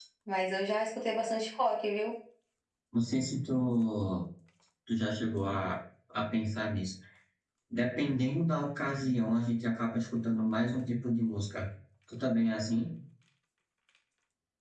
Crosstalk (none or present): none